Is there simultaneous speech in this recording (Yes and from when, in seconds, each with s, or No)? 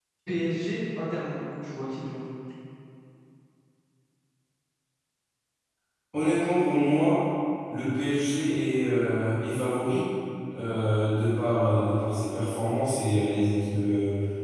No